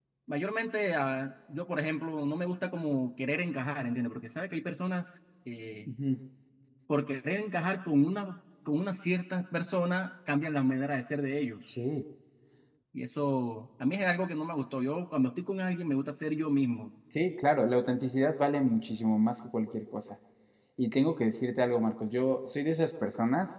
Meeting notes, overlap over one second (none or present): none